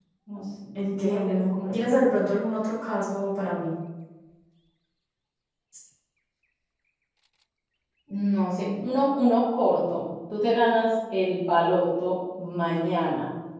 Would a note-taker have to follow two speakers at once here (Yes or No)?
Yes